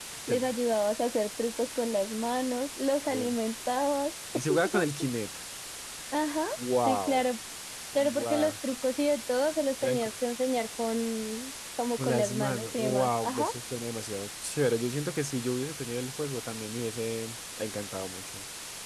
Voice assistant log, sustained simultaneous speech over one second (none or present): present